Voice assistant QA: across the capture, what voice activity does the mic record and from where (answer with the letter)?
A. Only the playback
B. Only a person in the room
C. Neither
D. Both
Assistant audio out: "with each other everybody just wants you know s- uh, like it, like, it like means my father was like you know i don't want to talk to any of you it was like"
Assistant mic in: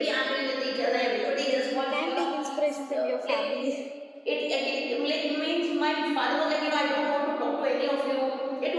D